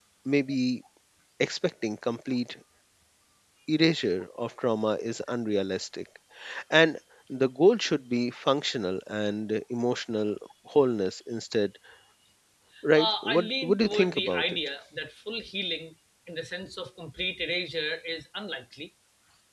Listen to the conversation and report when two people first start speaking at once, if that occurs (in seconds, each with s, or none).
12.9 s